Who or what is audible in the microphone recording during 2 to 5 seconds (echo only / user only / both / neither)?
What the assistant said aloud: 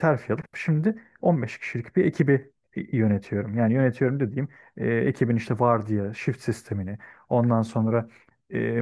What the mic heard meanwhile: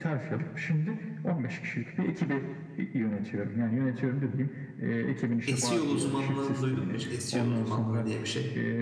echo only